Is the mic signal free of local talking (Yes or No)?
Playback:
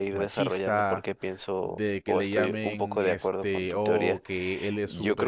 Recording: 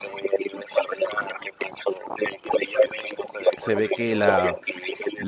No